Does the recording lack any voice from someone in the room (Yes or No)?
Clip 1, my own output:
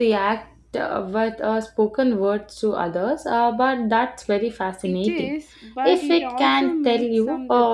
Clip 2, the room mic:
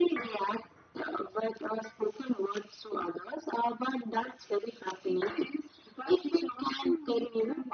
Yes